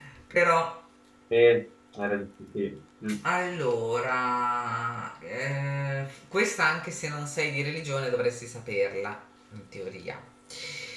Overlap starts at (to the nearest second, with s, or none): none